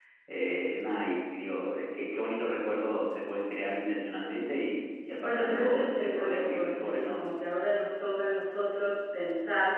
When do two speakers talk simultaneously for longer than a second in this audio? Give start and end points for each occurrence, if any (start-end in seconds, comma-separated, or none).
5.2-7.2